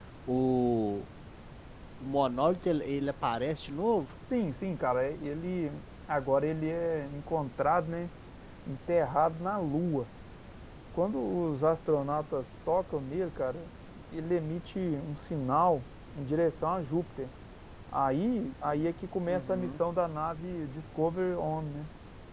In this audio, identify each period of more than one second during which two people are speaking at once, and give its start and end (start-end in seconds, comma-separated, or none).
none